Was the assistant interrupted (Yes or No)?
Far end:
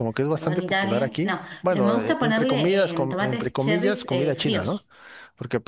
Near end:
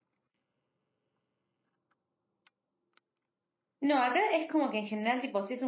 Yes